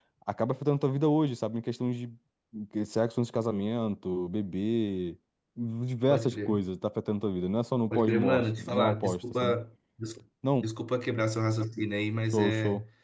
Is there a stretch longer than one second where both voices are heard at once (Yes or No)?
Yes